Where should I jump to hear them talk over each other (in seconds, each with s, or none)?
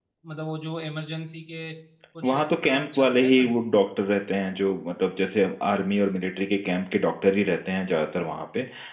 2.2 s